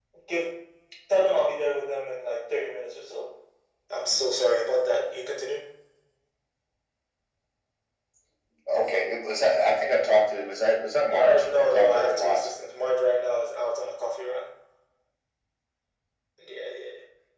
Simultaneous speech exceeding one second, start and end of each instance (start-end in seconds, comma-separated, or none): 11.1-12.5